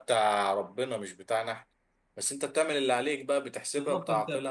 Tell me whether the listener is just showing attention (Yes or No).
No